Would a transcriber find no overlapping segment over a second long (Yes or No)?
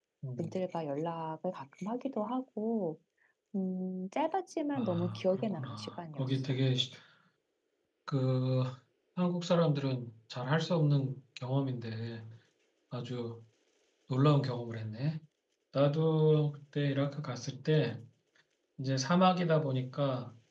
No